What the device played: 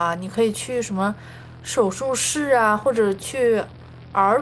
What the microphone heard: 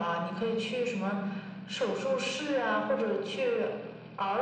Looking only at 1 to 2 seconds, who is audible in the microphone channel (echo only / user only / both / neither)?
echo only